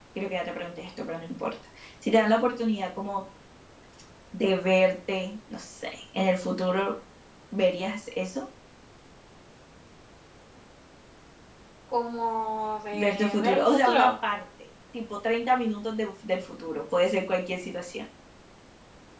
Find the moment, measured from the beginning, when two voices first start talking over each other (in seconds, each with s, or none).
12.9 s